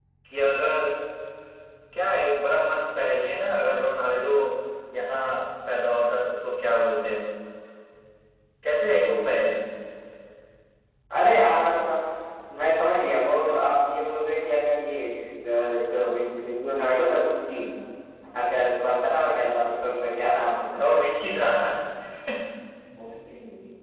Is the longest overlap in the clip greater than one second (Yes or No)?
No